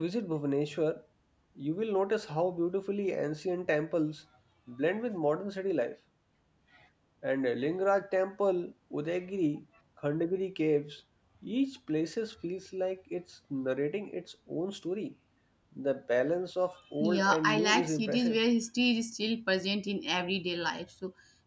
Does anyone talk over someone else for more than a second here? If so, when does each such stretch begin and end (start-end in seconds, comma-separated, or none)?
17.0-18.4